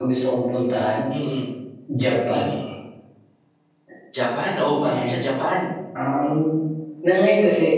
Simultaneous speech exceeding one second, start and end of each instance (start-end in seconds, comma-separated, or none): none